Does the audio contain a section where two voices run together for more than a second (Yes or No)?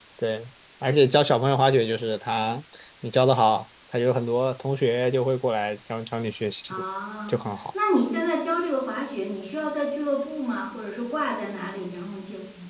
No